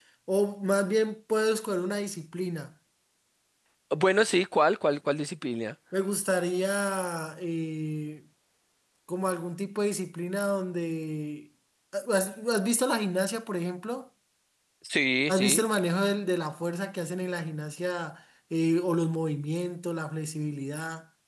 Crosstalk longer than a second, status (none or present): none